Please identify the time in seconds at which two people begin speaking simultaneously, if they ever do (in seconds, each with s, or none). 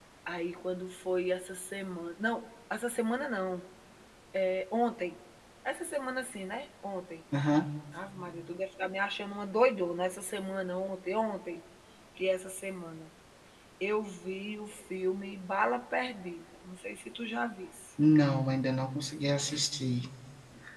none